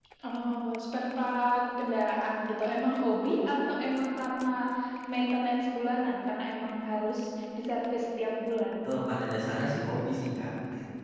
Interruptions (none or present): none